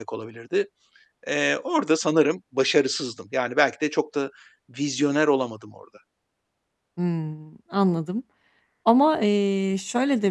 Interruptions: none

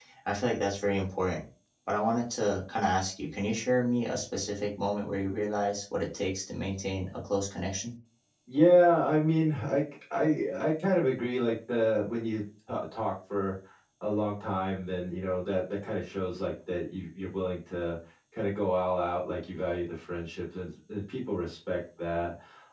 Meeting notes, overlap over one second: none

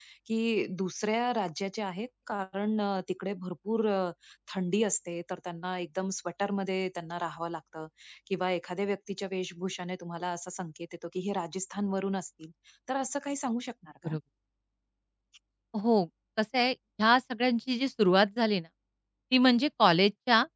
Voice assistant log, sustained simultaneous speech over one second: none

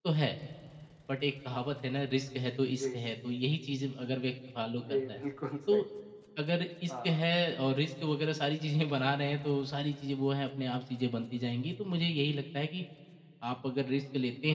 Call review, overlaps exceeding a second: none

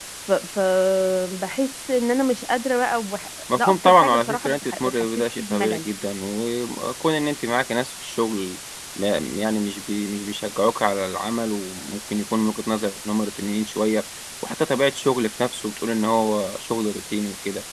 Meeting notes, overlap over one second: present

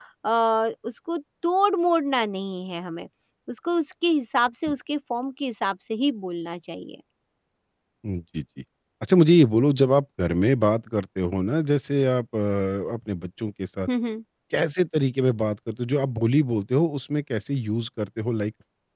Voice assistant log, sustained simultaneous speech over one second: none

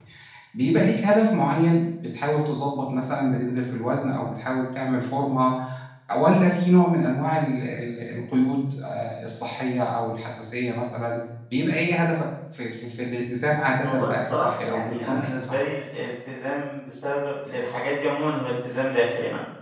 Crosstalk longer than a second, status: present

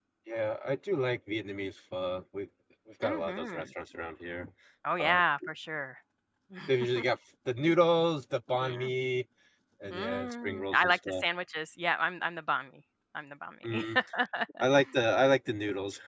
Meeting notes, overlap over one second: present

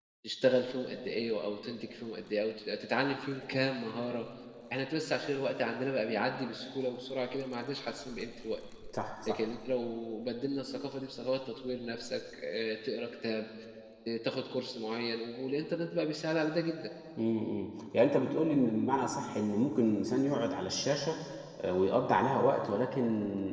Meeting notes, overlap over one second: none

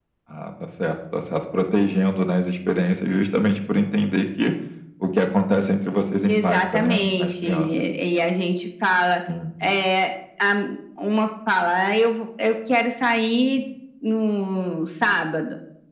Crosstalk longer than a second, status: present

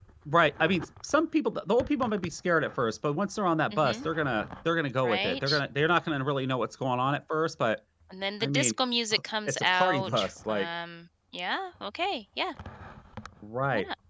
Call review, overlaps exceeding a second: present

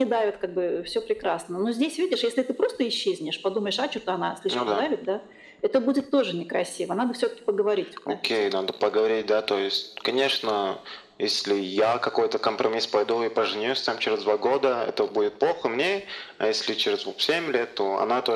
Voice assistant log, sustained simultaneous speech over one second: none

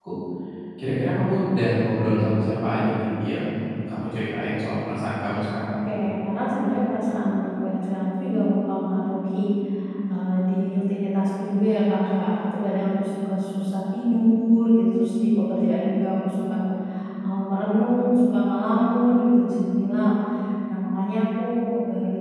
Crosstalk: none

